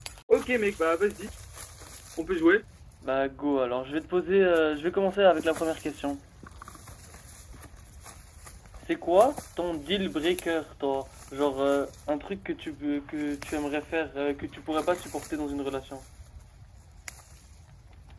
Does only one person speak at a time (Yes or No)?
Yes